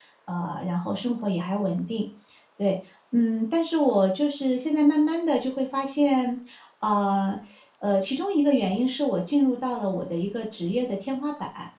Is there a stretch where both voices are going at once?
No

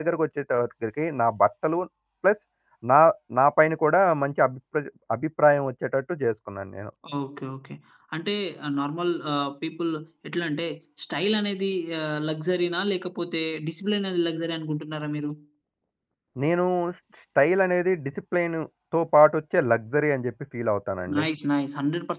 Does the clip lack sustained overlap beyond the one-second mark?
Yes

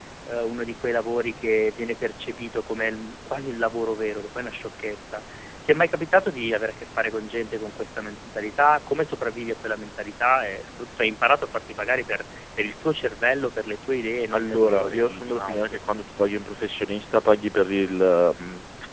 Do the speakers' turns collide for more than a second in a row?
Yes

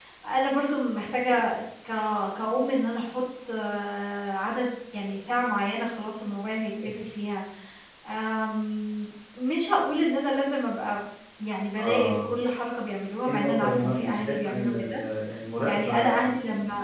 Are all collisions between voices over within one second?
No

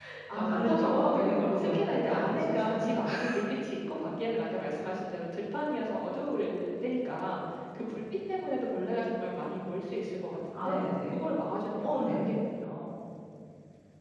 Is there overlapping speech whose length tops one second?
Yes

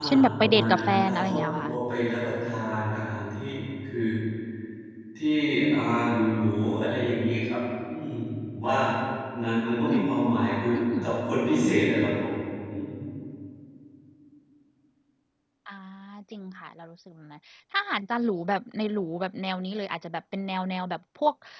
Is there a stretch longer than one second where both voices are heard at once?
Yes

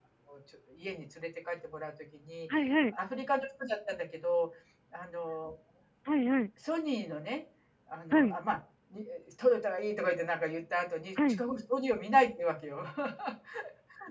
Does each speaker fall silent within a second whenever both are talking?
Yes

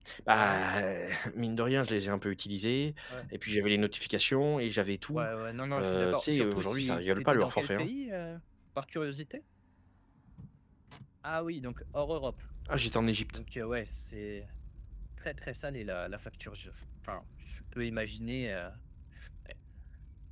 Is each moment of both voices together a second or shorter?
No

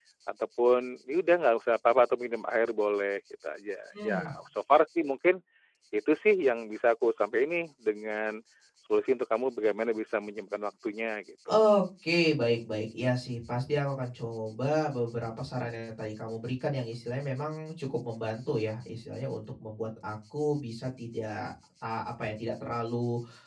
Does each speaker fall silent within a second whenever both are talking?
Yes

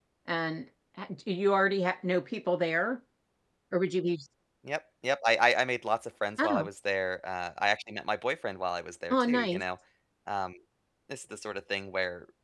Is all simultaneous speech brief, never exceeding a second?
Yes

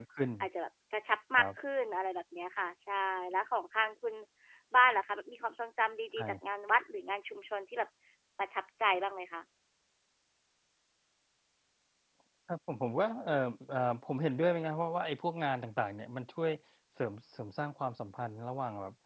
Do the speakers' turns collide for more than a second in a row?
No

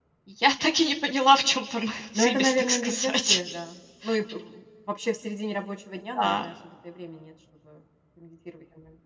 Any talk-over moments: Yes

